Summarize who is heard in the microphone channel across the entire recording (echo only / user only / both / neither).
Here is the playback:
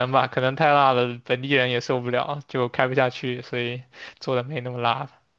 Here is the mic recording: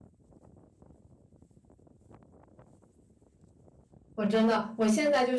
user only